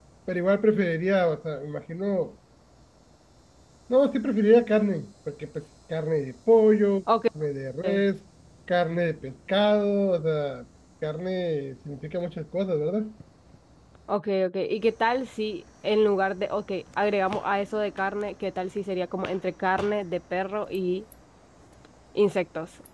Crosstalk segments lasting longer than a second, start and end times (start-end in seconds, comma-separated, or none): none